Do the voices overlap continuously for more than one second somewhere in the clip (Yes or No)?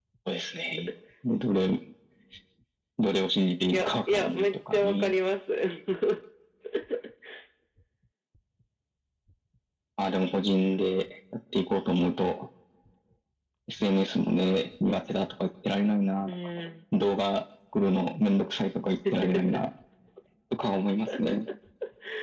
Yes